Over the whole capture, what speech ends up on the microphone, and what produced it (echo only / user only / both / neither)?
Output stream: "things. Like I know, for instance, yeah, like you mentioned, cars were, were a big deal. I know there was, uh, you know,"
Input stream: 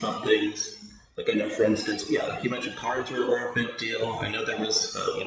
echo only